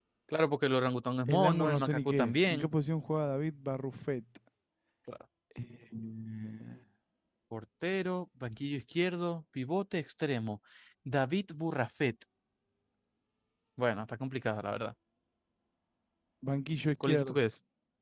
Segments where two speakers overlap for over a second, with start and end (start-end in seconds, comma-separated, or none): 1.3-2.7